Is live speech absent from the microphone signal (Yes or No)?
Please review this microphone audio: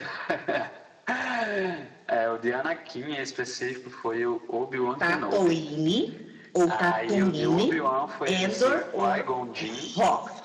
No